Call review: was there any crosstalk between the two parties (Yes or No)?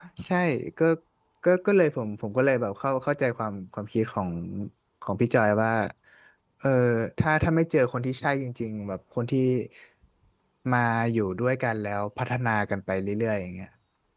No